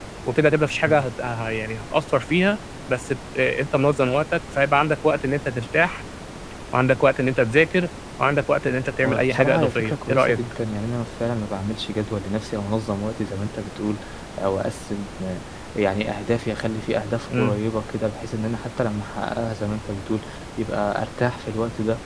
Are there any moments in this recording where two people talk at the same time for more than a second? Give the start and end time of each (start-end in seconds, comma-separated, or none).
9.0-10.4